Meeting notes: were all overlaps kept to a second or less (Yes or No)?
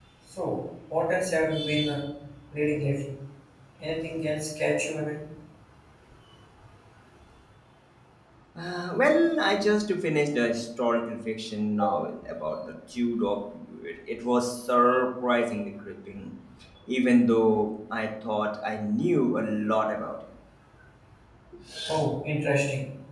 Yes